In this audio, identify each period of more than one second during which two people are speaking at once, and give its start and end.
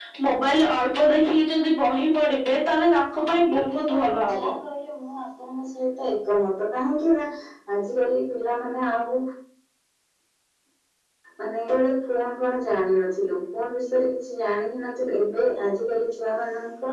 3.1-4.5

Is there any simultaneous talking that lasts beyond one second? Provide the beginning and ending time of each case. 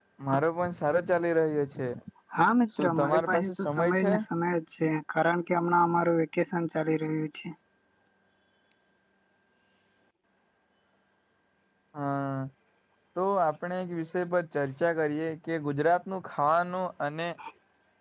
2.8-4.1

